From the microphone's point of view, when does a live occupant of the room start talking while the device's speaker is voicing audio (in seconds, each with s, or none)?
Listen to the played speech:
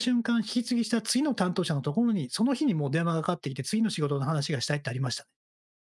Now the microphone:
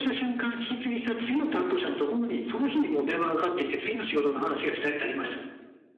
none